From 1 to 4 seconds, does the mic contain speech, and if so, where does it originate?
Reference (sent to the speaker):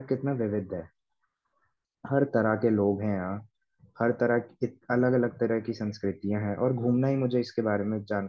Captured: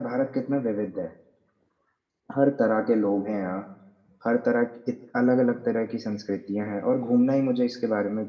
echo only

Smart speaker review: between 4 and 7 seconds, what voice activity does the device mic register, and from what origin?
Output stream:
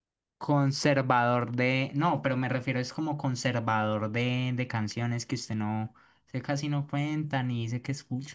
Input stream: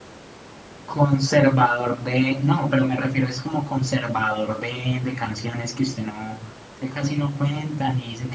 echo only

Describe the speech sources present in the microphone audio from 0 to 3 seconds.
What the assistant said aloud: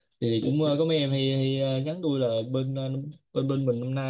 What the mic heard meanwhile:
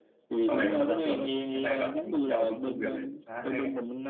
both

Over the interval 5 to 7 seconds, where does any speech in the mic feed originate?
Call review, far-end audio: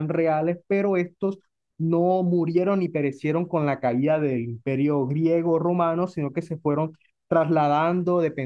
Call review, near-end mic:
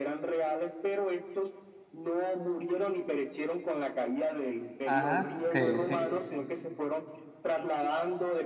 both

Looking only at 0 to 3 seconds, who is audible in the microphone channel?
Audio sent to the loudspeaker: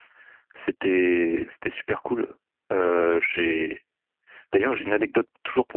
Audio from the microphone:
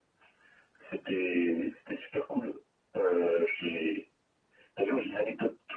echo only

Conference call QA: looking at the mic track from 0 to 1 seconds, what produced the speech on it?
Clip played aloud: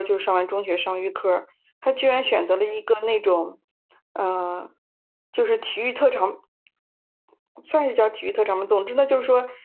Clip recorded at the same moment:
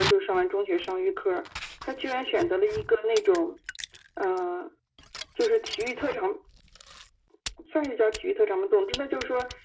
echo only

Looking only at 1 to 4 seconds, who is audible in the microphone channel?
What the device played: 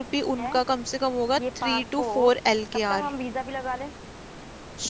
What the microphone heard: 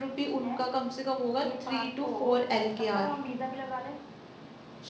echo only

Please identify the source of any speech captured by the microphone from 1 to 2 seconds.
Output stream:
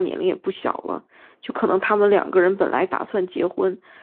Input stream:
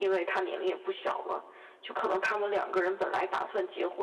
echo only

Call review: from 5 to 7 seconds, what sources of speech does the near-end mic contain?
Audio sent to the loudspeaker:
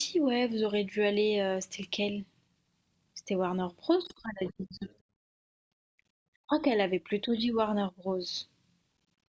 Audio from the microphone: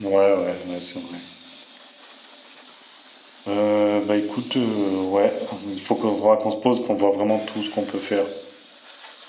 user only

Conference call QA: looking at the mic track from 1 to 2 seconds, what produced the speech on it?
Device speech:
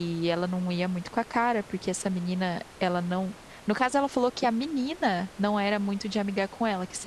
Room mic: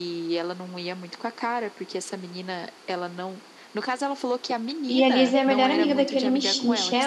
echo only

